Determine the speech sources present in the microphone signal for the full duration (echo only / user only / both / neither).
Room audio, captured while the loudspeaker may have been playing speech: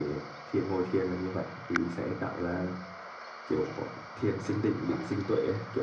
echo only